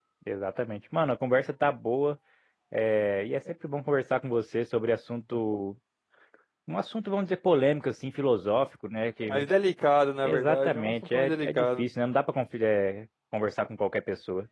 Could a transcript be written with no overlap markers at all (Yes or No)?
No